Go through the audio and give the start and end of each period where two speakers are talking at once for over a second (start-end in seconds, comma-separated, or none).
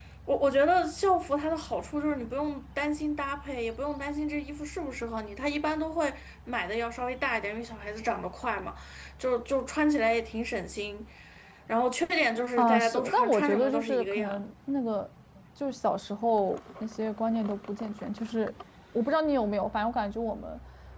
12.6-14.4